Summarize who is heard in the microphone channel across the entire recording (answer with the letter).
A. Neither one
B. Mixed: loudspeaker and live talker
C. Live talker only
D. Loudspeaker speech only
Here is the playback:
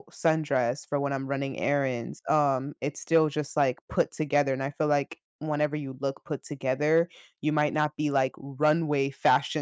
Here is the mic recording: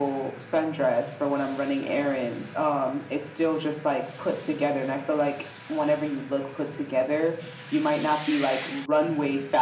D